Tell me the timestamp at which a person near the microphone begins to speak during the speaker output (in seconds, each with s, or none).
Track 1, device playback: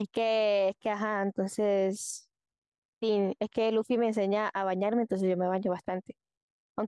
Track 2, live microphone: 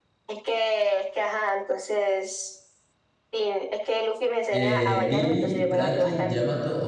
4.5 s